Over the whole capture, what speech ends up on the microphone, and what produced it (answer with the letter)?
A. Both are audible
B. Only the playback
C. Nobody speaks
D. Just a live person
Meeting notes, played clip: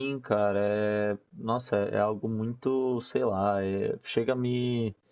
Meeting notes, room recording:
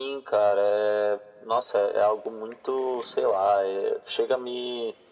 B